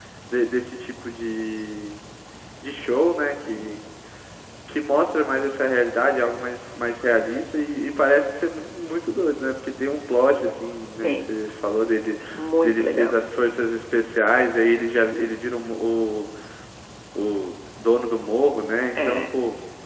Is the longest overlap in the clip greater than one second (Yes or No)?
No